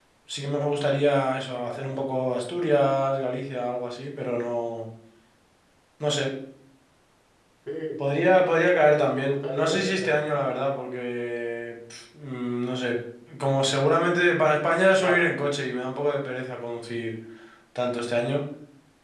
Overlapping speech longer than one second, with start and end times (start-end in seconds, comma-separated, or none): 9.0-10.2